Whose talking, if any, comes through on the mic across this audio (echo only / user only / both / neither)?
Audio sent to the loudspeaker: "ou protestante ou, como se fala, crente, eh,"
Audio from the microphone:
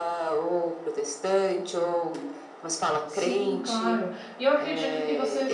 both